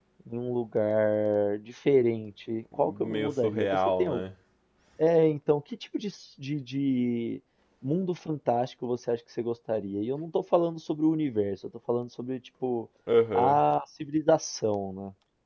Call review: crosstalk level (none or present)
present